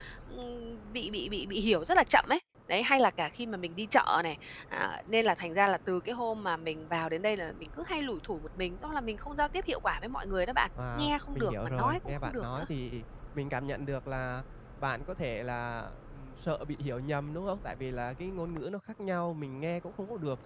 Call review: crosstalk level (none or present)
present